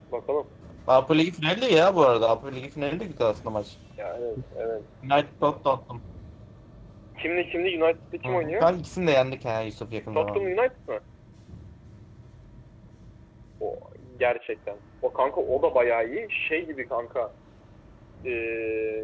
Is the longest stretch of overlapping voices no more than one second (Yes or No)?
Yes